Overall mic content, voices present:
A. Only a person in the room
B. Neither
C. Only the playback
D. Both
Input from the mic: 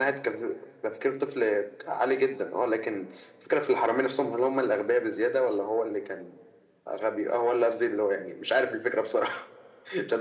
C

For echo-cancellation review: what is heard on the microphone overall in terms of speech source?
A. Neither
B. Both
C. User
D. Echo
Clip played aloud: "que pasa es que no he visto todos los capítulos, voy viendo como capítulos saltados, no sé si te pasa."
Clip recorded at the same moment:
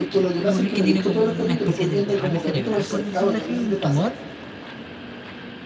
B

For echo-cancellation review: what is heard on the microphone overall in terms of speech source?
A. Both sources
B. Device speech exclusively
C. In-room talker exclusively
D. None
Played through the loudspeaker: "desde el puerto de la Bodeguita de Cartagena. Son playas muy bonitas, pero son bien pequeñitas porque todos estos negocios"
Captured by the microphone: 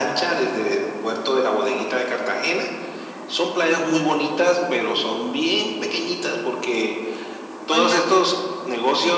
A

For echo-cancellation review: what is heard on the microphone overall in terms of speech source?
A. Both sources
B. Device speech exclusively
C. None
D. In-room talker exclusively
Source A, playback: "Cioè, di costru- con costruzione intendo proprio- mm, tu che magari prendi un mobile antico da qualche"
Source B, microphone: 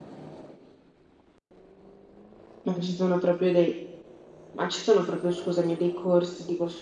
D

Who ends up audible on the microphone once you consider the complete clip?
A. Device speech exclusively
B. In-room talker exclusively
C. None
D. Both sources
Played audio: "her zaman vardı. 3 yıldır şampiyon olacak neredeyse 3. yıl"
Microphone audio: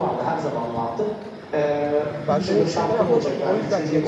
D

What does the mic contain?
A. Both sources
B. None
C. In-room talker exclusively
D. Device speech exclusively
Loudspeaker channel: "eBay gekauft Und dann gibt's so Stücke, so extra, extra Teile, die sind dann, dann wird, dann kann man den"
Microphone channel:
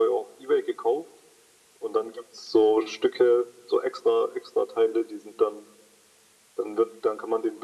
D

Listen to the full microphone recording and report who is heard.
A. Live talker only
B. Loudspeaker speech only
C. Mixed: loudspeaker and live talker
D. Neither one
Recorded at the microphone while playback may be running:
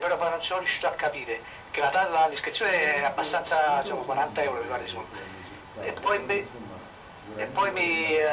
C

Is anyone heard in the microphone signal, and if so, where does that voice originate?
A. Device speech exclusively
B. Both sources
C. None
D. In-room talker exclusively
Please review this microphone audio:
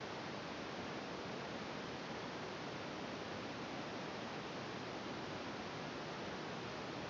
C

